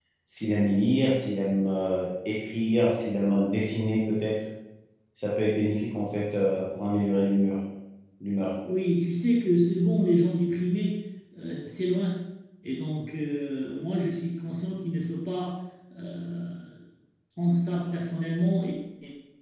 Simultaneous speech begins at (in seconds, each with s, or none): none